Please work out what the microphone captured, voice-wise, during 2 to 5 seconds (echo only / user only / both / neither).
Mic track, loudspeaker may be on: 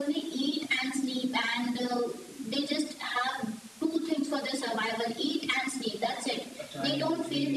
echo only